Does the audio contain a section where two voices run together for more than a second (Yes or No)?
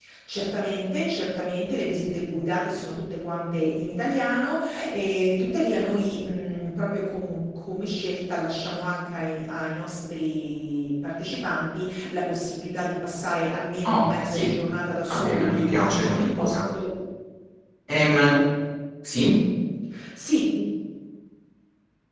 Yes